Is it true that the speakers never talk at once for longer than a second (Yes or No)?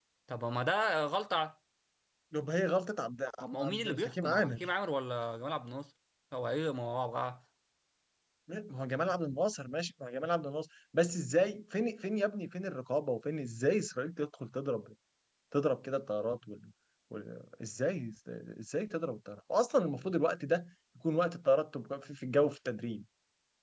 No